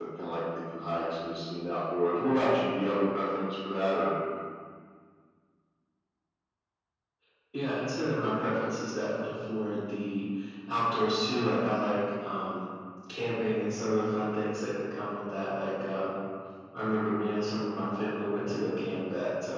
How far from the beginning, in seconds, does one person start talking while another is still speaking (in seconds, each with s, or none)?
none